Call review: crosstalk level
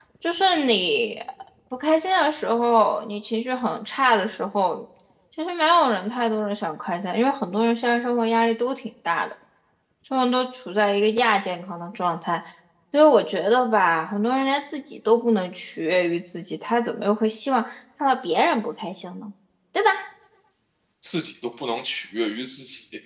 none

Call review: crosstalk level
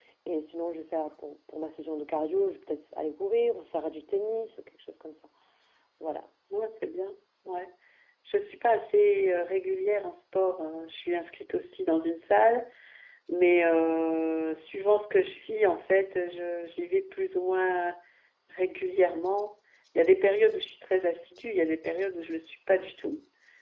none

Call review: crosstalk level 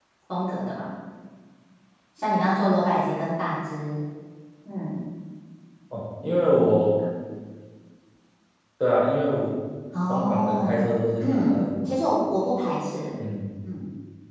present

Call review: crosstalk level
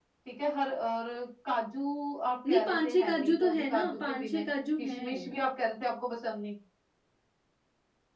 present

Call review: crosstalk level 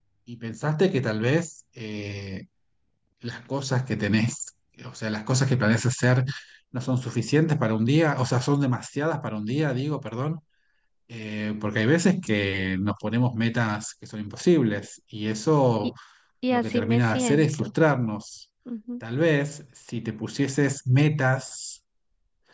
present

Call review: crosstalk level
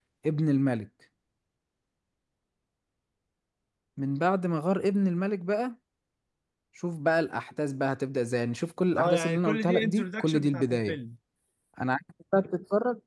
present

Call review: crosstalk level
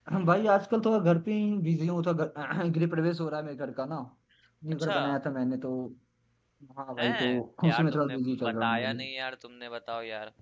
present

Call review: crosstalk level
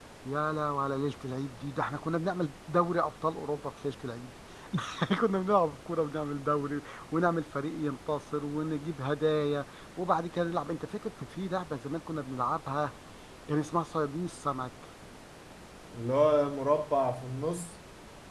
none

